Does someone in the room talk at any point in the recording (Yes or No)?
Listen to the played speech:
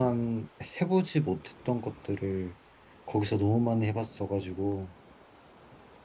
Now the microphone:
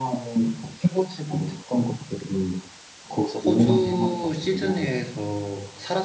Yes